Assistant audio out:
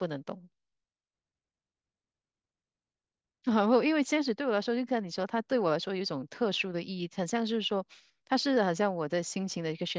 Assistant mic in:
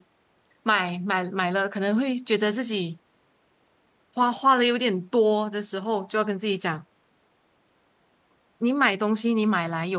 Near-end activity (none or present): present